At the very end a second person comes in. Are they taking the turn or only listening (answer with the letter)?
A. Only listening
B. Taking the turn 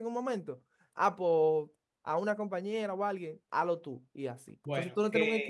B